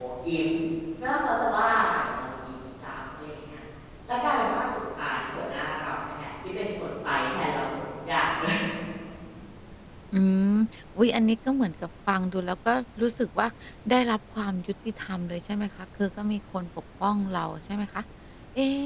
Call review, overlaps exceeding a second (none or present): none